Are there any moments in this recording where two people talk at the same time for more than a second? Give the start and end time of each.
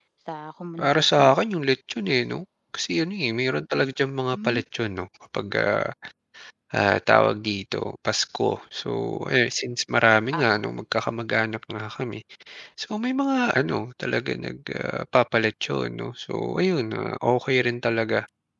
none

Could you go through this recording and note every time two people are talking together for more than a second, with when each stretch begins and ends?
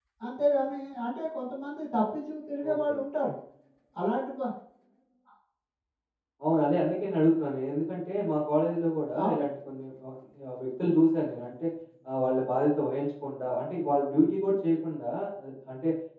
none

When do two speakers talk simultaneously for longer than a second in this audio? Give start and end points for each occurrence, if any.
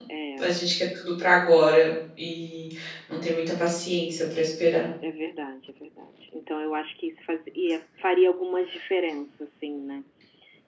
none

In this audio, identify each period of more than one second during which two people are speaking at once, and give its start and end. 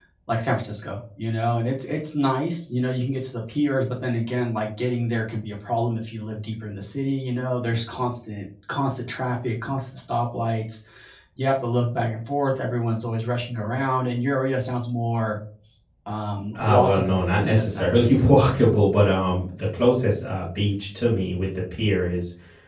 16.5-18.2

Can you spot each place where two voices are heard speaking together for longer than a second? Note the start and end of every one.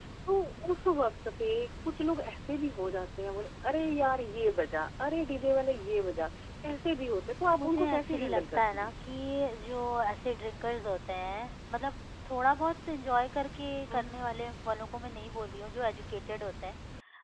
7.5-8.9

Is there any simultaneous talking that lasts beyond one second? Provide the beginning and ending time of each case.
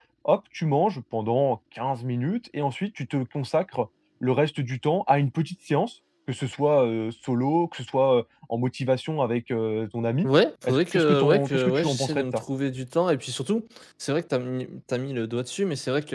10.6-12.4

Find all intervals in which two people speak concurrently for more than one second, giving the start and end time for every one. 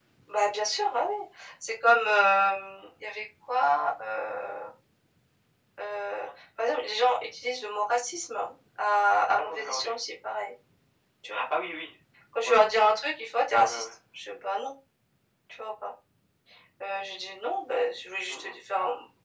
none

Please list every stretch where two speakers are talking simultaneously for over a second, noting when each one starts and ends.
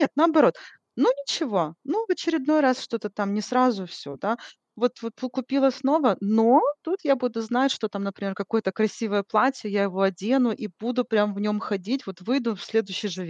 none

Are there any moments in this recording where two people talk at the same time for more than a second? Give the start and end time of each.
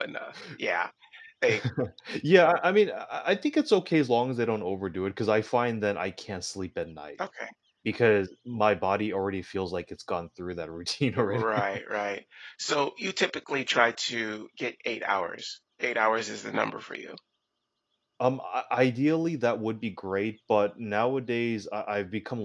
none

